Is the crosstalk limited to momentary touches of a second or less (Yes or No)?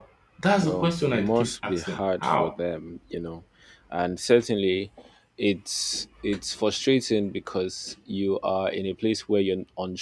No